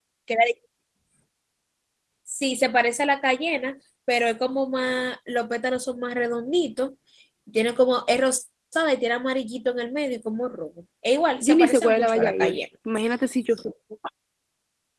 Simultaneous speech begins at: 11 s

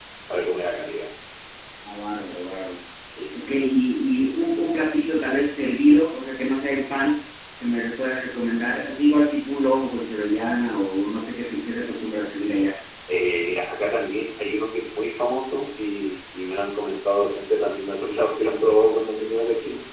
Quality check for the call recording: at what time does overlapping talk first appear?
none

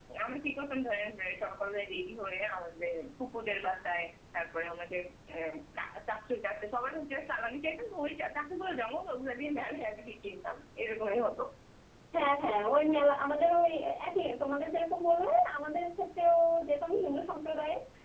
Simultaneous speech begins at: none

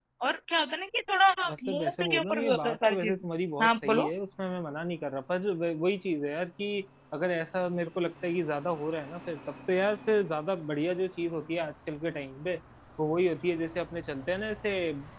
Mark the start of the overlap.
2 s

